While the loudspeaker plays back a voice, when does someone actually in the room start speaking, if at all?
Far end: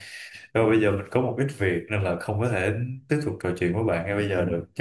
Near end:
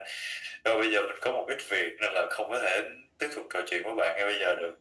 none

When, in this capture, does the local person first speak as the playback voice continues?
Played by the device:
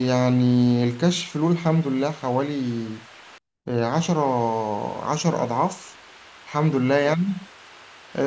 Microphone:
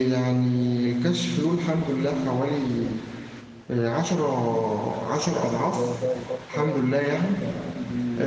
5.3 s

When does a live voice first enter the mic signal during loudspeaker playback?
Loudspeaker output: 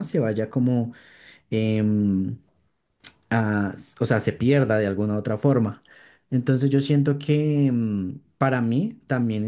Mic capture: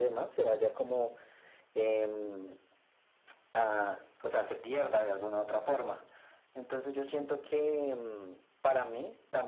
none

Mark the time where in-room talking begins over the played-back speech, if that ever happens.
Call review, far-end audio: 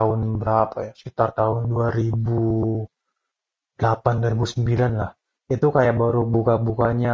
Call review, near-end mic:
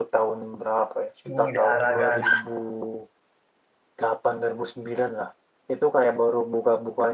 1.2 s

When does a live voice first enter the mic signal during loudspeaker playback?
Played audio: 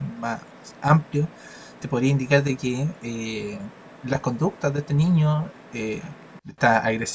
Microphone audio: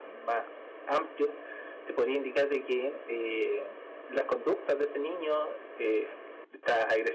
none

